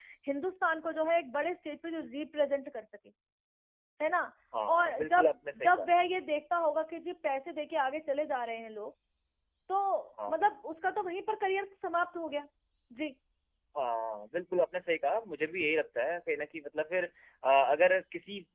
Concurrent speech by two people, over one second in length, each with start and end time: 4.7-5.9

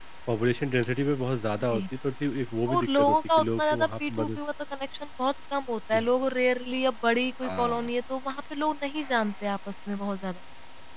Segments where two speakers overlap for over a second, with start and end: 2.7-4.4

